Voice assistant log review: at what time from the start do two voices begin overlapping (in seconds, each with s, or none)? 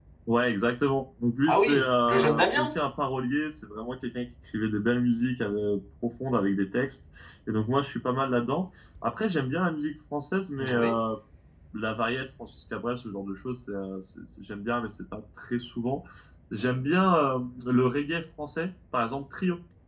1.5 s